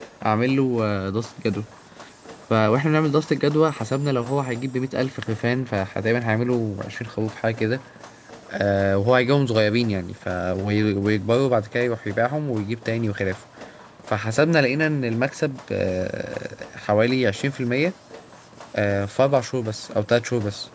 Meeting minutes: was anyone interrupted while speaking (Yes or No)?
No